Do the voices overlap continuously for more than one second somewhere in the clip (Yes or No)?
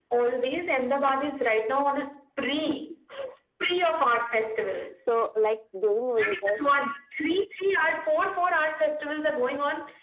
No